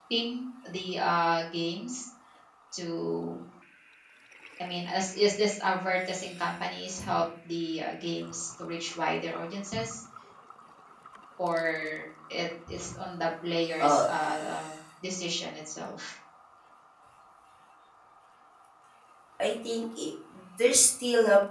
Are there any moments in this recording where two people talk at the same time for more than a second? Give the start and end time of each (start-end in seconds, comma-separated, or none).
none